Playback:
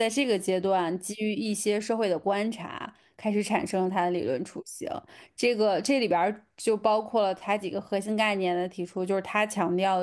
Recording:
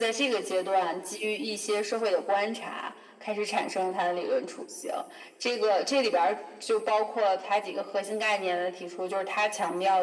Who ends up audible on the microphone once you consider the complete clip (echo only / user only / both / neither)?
echo only